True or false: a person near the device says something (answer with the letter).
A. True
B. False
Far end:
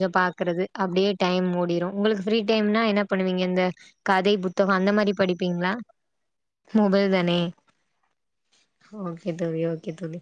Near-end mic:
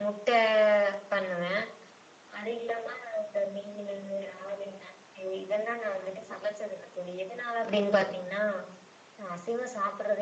A